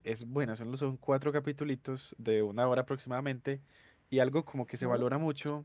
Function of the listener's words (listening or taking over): listening